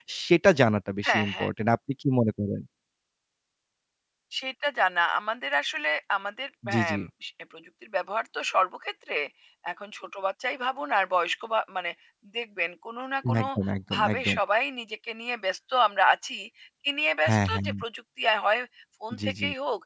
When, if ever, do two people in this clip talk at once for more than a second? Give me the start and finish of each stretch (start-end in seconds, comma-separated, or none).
none